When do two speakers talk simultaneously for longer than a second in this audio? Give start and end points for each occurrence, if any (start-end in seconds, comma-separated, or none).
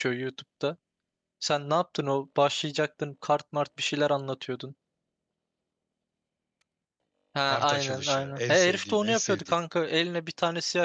7.5-9.6